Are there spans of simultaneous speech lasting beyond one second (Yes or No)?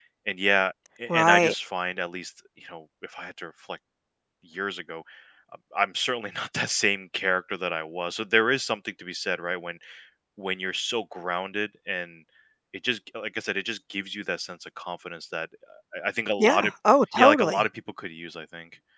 No